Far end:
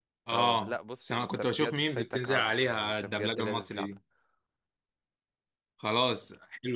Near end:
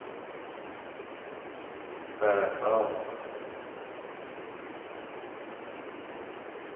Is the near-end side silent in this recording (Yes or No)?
No